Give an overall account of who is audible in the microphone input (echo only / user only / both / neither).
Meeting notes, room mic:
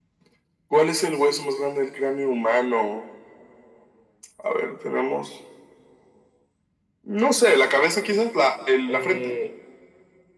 both